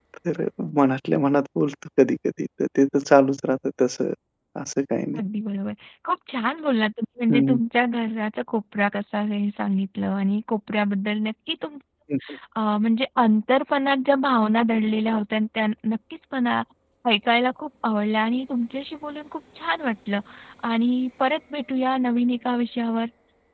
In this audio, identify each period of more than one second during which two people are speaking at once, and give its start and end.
none

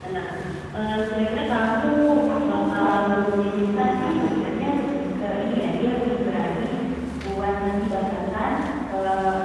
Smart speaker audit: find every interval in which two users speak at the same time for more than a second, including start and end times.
2.5-4.3

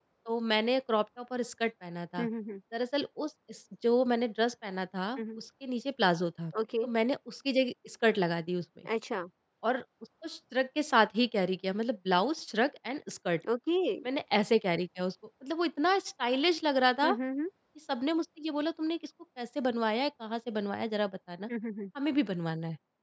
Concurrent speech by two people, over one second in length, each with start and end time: none

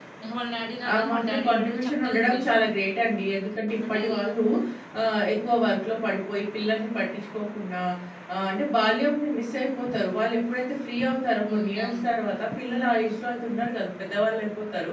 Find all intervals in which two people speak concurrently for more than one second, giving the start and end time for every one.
0.9-2.5

